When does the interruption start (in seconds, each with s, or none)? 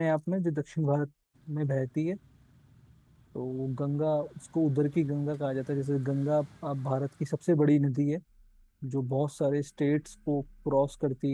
none